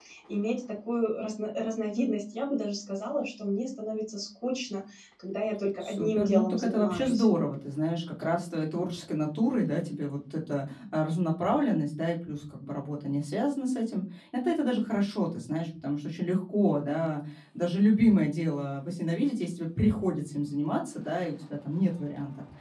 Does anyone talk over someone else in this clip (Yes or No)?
Yes